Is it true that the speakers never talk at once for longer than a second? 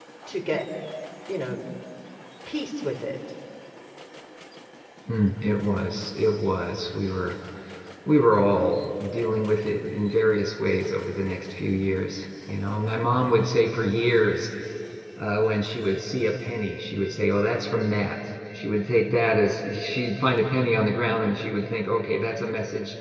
Yes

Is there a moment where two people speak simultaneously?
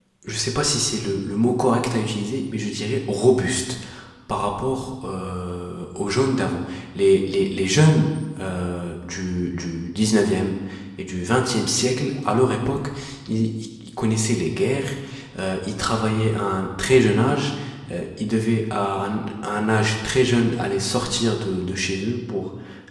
No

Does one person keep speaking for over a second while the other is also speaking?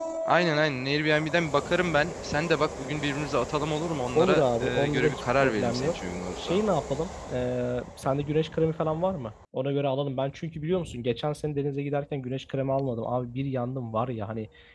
Yes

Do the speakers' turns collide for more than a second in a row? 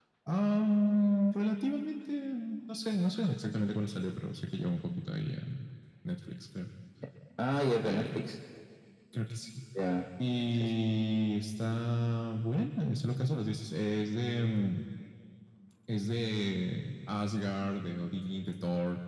No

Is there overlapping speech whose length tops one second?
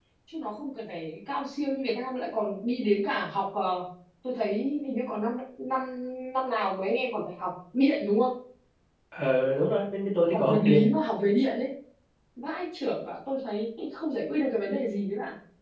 No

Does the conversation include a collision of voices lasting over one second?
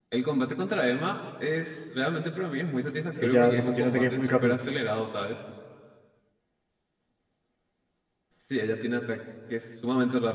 Yes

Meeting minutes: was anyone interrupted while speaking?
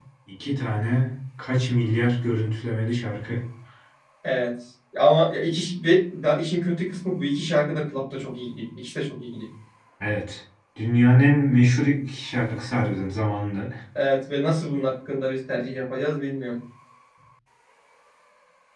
No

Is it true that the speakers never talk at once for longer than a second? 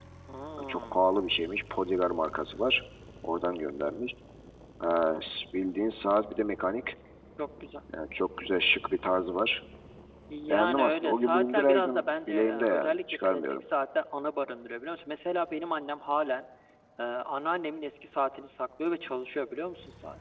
No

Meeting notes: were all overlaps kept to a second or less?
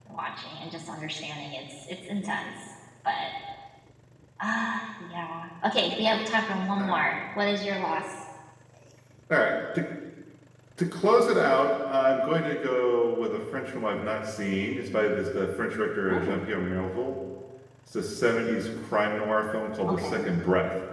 Yes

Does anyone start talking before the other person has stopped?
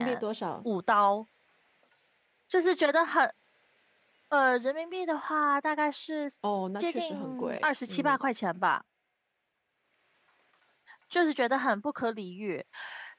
Yes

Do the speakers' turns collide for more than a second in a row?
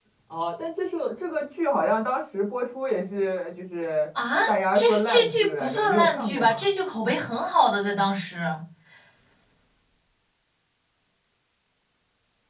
Yes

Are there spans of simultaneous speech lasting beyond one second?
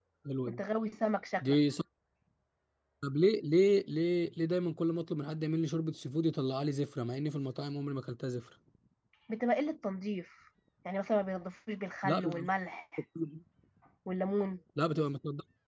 No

